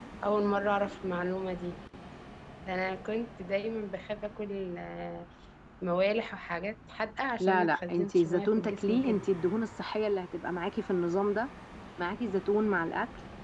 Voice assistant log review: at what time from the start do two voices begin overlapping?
7.4 s

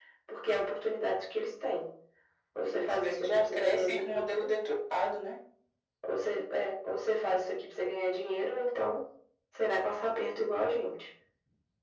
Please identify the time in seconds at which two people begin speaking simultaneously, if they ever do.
2.6 s

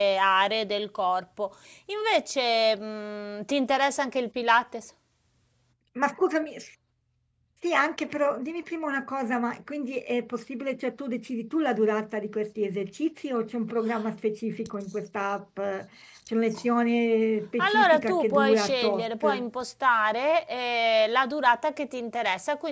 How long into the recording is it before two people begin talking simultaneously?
17.6 s

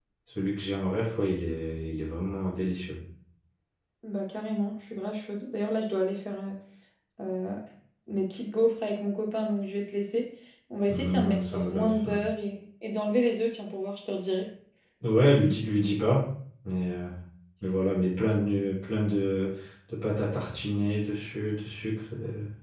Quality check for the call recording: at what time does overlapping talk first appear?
10.9 s

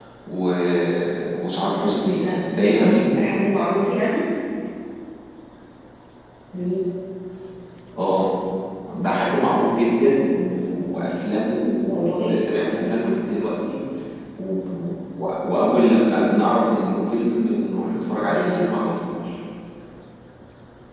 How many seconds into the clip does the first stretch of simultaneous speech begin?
1.8 s

